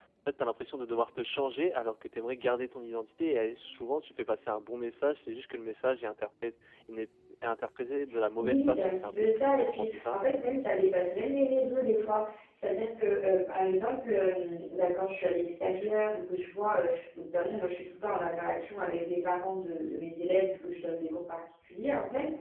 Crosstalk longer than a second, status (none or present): present